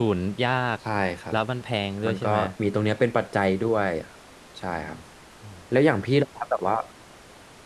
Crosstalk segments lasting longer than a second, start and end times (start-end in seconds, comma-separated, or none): none